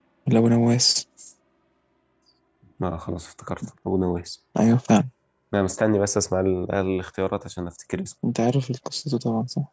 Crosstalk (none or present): none